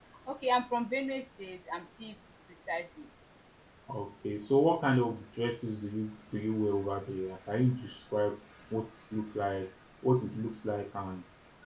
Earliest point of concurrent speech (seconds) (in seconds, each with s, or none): none